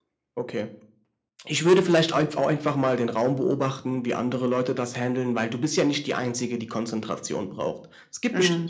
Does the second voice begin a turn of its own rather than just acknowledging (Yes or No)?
No